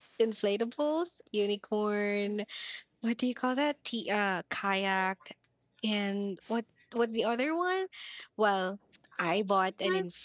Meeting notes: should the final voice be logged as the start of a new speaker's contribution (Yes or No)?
No